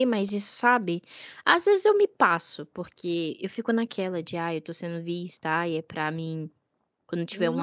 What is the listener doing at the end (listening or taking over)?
taking over